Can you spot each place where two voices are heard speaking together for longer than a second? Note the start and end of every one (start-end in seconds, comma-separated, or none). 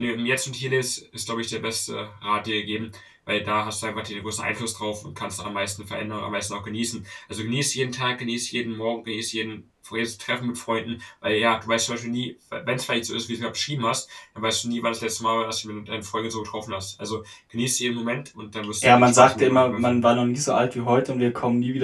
18.8-20.1